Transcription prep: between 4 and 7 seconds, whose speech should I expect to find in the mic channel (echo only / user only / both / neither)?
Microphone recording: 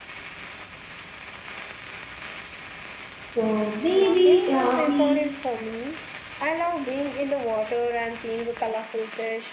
both